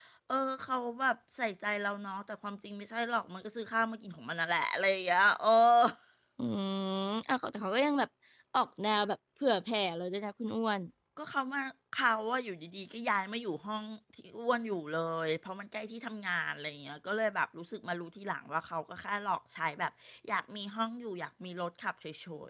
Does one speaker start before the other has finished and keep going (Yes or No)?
No